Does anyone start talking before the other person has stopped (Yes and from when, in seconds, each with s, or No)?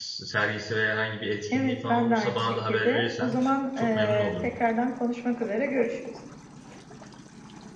Yes, from 1.5 s